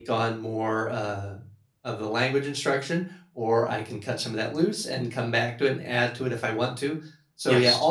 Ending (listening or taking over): listening